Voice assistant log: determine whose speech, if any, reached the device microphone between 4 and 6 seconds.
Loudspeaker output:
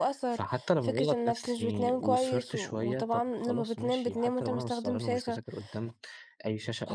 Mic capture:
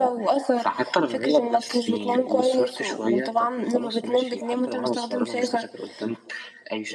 echo only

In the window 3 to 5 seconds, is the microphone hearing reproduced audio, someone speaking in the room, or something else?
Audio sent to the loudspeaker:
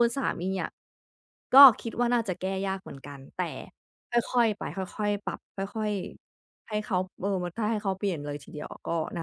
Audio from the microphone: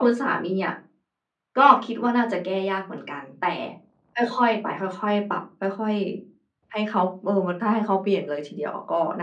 echo only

